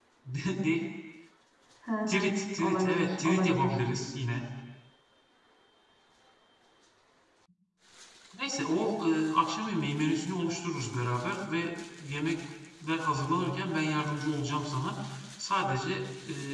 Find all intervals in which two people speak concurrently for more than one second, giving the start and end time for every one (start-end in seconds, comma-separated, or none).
2.1-3.8